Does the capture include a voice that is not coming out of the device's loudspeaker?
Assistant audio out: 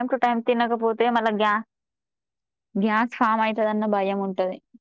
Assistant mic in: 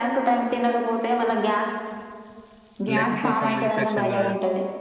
Yes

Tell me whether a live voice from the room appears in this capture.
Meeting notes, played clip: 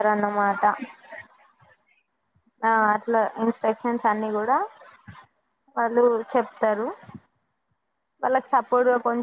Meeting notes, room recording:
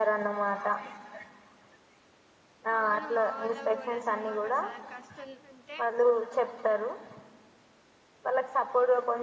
Yes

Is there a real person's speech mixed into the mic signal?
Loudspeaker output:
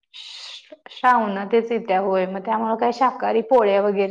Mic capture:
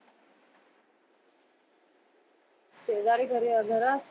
Yes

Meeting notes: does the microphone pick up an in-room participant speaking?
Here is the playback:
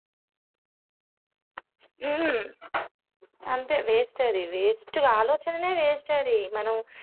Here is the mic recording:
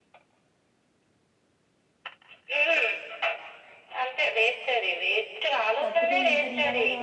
Yes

